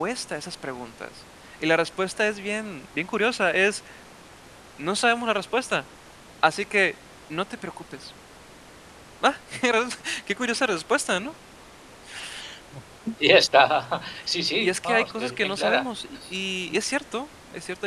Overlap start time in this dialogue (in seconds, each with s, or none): 14.6 s